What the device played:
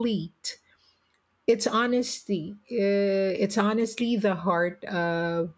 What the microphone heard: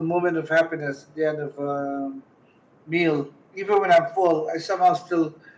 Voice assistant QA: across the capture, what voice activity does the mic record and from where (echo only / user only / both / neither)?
user only